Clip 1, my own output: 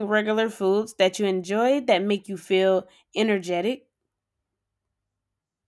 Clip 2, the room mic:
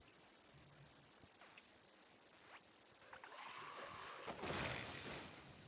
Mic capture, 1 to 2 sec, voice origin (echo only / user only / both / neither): neither